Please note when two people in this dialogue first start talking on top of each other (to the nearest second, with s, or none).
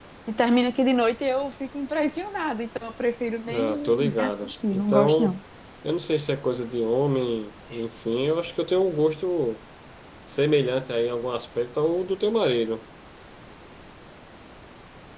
3 s